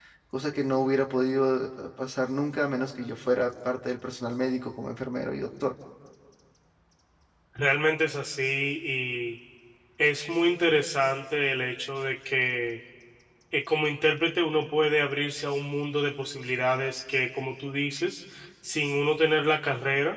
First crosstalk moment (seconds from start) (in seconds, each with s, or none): none